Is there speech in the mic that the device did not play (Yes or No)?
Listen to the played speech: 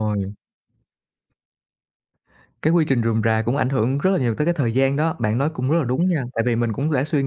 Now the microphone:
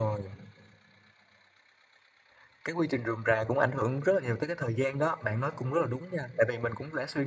No